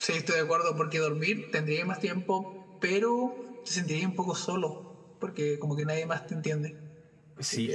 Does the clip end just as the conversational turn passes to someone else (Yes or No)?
Yes